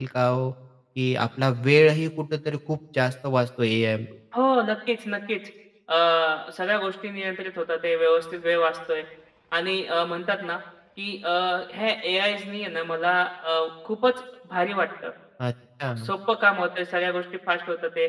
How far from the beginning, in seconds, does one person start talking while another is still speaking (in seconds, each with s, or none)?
none